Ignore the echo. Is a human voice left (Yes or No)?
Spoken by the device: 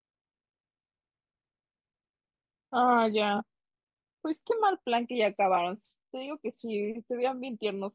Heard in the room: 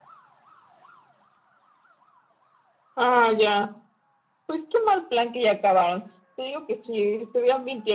No